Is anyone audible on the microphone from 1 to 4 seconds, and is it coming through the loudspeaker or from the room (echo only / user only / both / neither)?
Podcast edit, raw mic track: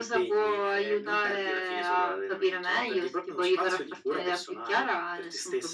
echo only